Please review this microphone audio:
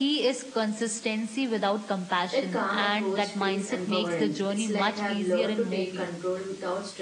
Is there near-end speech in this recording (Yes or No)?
Yes